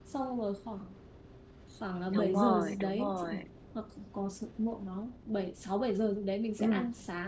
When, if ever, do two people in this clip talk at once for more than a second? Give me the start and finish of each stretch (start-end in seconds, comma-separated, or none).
2.1-3.4